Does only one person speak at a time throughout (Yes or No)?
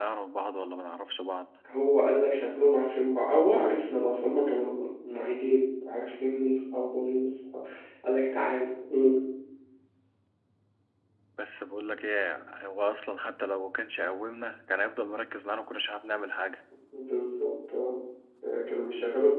Yes